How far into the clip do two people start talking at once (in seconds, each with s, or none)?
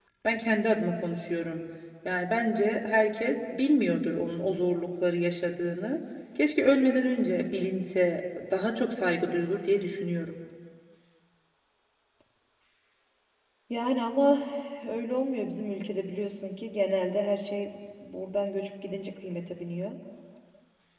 none